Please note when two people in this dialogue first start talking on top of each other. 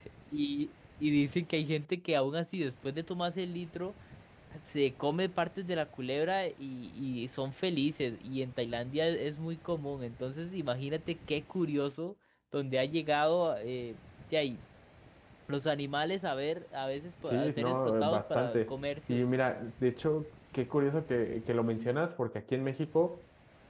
17.2 s

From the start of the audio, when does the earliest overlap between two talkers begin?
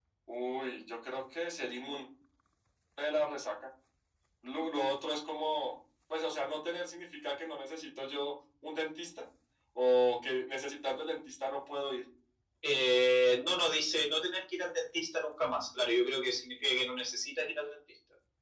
none

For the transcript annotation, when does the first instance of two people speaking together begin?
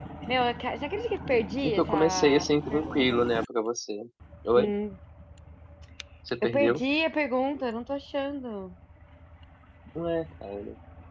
1.6 s

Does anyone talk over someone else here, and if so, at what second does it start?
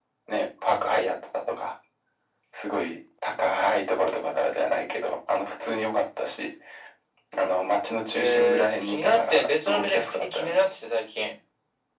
8.1 s

